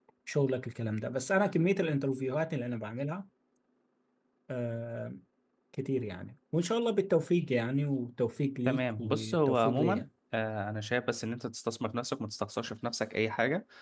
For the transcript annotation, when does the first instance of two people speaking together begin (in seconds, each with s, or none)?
8.6 s